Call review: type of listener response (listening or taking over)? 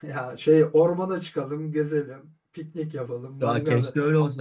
taking over